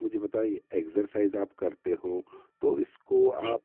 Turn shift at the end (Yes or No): No